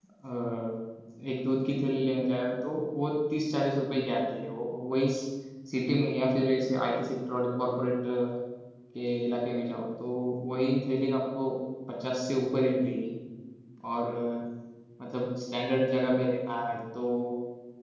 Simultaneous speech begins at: none

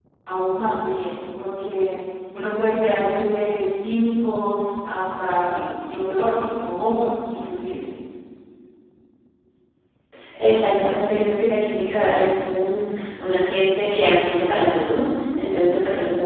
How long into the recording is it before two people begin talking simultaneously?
none

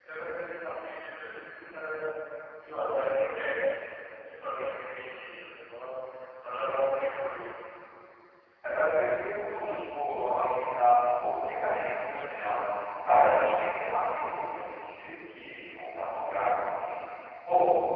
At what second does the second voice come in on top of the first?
none

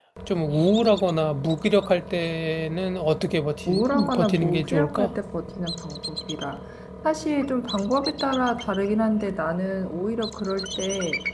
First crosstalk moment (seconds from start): 3.7 s

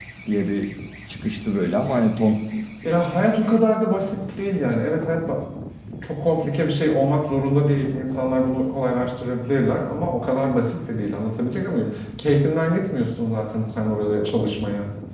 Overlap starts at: none

